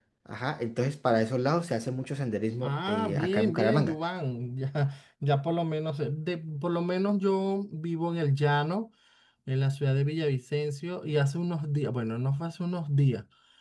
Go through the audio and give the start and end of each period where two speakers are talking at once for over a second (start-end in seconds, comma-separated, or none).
2.6-4.0